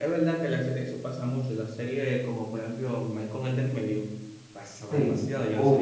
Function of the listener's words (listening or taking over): taking over